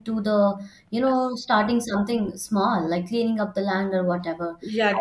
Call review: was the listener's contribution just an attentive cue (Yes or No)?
No